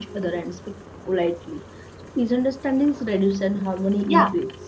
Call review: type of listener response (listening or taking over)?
taking over